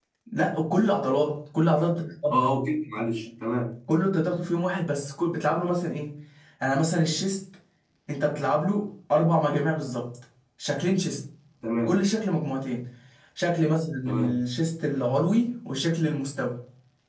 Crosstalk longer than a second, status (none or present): none